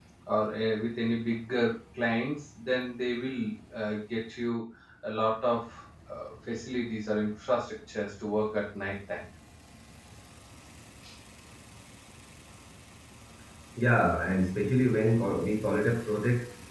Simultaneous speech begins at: none

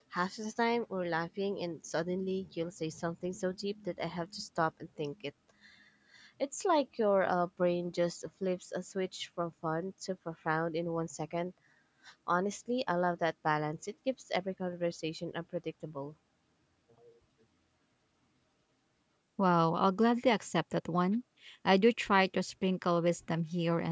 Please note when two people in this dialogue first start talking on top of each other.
none

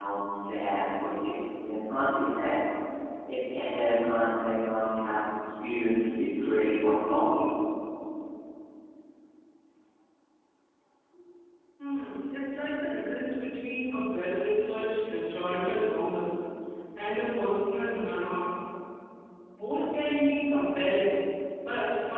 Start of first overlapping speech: none

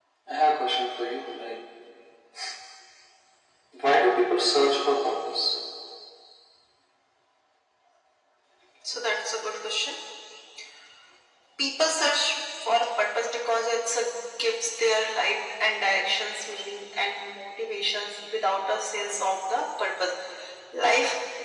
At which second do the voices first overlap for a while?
none

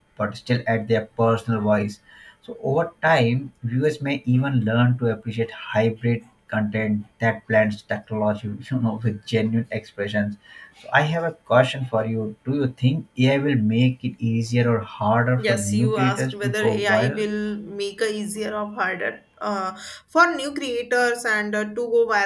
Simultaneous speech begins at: 15.4 s

